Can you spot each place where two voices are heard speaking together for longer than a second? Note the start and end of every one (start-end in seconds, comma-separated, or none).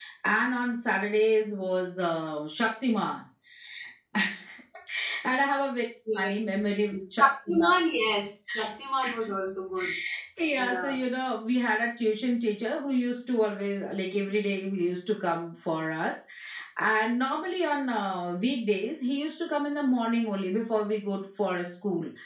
none